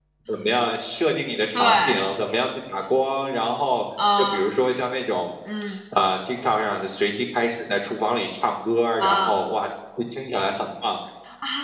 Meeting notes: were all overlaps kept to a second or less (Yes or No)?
Yes